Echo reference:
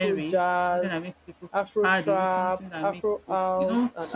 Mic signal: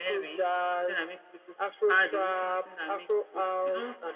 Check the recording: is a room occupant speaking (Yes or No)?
No